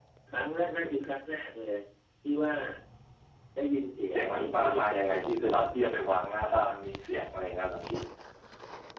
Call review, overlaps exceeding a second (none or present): present